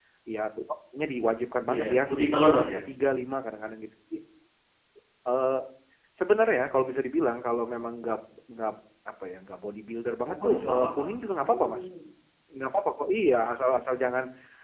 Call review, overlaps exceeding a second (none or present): present